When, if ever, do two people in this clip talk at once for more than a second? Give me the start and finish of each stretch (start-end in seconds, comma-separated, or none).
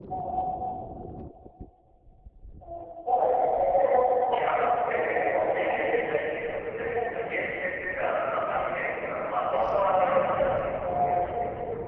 4.3-5.6